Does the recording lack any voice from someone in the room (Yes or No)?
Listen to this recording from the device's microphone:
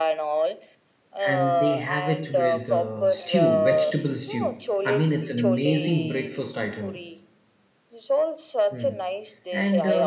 No